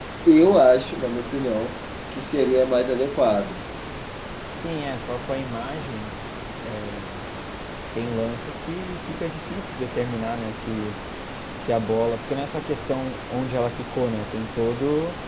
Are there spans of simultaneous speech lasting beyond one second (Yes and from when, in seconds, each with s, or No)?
No